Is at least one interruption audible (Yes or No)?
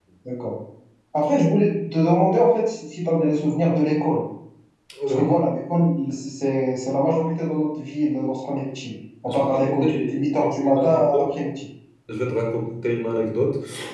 Yes